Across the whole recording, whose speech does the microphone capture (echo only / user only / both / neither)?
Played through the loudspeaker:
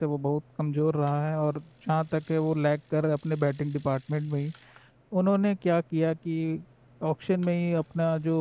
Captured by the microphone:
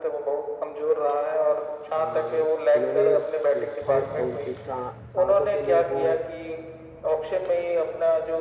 both